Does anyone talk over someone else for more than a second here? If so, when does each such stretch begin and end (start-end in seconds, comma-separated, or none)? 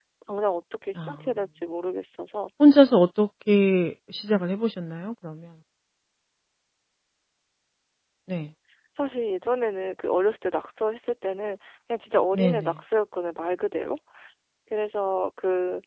none